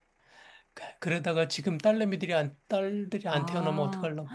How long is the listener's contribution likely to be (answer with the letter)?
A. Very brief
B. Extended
B